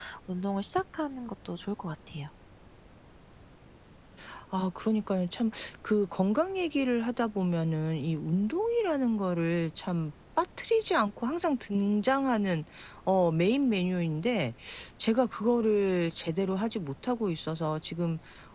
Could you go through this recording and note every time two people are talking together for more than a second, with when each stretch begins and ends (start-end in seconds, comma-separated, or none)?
none